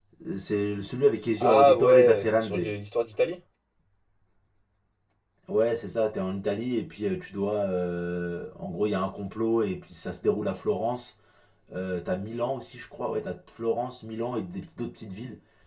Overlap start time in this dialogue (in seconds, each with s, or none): 1.4 s